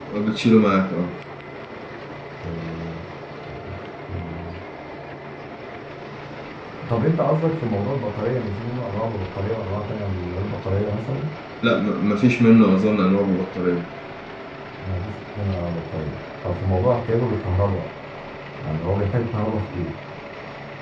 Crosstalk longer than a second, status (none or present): none